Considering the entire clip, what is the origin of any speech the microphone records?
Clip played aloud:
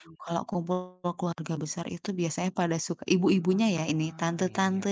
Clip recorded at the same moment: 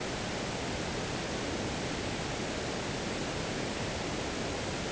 neither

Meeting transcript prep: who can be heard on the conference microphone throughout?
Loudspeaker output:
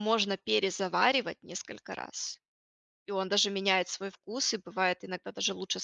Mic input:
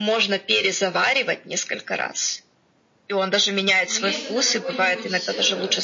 both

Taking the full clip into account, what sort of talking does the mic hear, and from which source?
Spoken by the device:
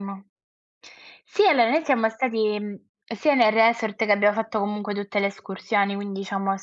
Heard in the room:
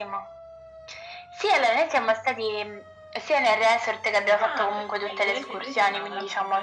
both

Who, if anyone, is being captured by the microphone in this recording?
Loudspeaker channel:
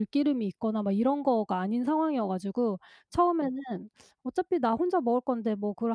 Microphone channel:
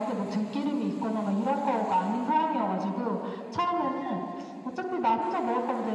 echo only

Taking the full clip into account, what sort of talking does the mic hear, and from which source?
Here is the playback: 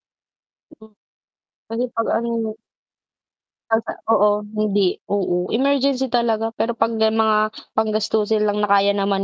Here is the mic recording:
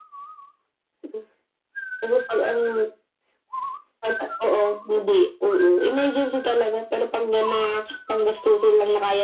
echo only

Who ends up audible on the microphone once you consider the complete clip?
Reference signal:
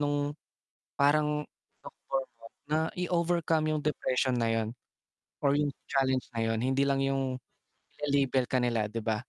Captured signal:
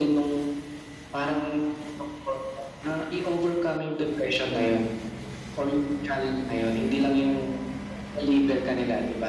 echo only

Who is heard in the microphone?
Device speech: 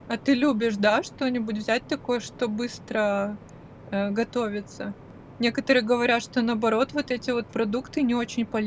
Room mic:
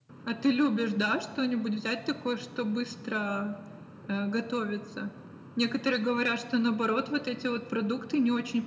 echo only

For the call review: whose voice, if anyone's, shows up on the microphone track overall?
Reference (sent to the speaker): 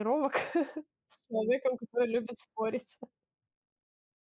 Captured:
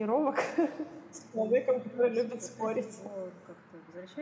both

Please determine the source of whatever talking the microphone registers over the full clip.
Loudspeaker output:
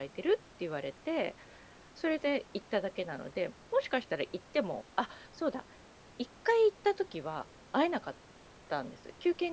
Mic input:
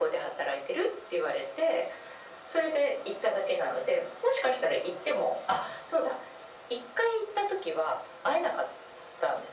echo only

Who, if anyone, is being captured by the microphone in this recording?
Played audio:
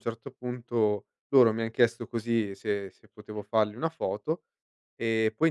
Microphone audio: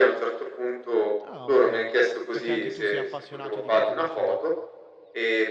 both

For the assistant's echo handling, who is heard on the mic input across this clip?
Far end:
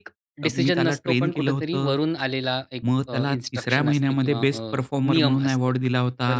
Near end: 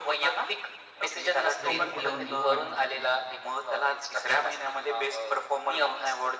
both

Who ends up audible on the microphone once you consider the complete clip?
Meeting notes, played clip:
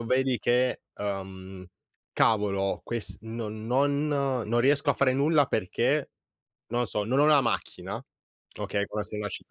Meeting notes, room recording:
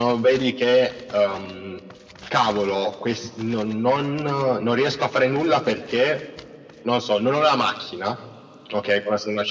echo only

